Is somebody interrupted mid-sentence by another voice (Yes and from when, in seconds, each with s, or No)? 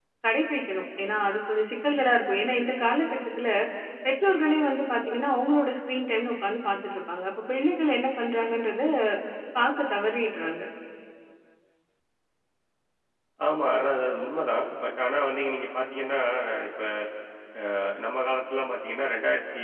No